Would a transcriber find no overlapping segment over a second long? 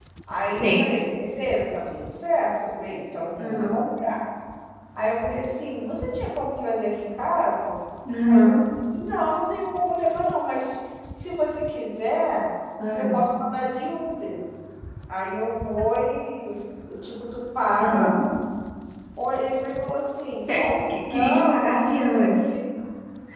No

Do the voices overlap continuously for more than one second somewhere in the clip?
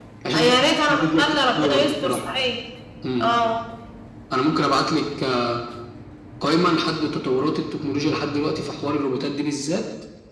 Yes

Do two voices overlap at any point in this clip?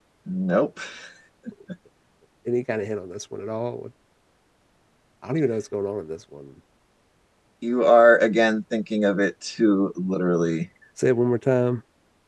No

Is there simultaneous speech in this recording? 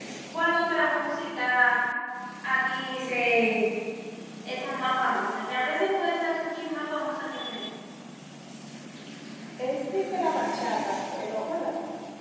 No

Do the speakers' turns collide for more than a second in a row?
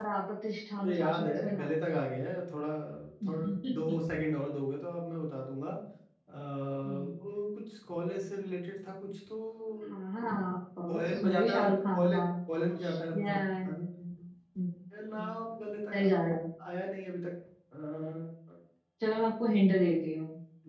Yes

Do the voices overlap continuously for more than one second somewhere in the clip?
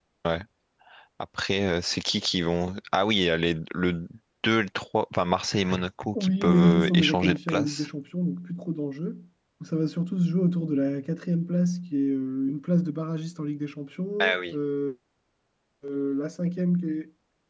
Yes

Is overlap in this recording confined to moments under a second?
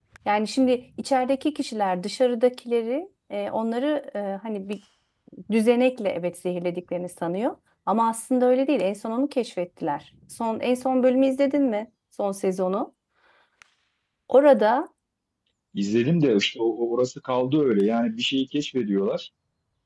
Yes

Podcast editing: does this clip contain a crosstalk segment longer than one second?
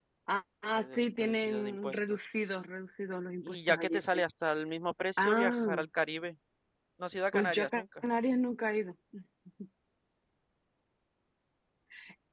Yes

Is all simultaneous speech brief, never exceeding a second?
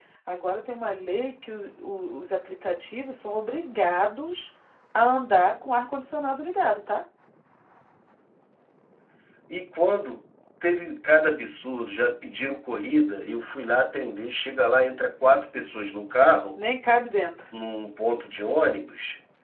Yes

